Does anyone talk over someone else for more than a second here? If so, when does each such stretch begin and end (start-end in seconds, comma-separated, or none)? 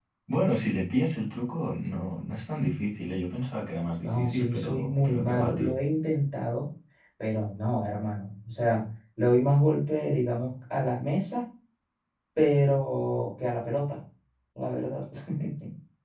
4.0-5.8